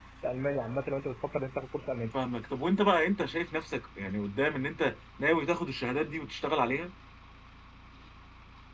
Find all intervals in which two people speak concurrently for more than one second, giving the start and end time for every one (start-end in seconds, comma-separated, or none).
none